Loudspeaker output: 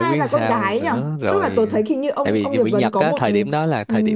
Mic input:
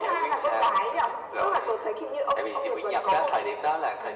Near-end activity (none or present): none